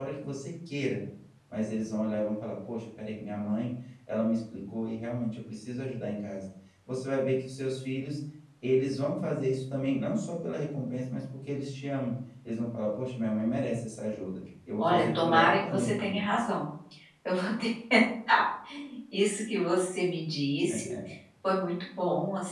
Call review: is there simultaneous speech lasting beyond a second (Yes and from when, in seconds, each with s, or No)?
Yes, from 14.8 s